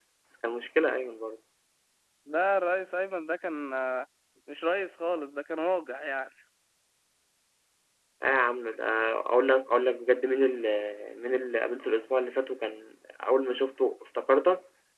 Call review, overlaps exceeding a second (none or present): none